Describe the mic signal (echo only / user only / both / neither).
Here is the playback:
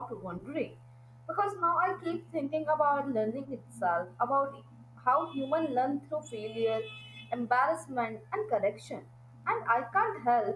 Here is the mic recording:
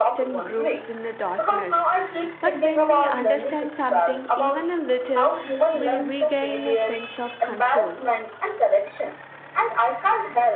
both